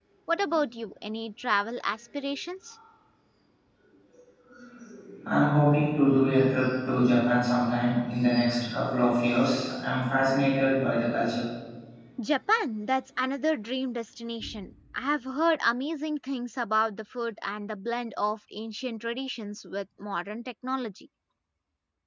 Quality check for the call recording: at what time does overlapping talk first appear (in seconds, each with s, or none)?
none